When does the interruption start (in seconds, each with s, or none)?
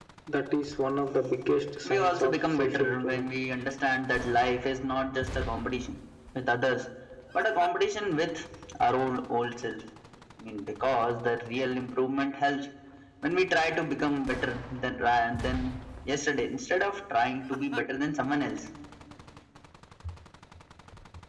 1.8 s